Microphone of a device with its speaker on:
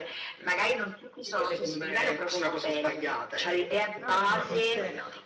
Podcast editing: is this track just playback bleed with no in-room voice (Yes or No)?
No